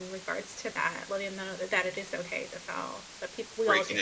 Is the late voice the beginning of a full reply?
Yes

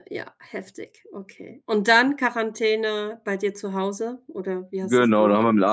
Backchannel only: No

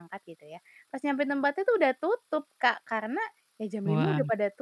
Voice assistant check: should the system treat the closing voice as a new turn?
No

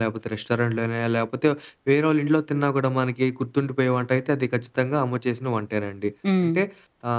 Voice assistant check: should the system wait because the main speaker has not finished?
Yes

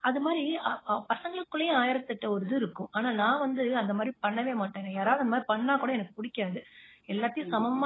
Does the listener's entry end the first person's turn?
No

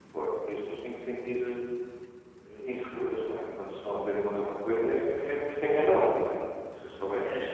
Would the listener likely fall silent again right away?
Yes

